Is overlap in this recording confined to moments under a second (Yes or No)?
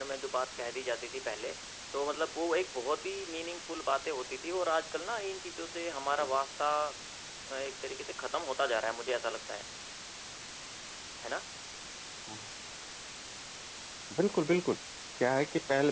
Yes